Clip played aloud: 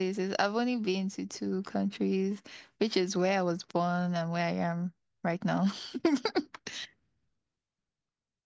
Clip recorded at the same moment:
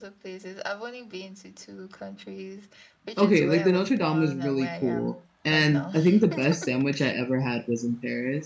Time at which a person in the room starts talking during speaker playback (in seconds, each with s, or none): 3.2 s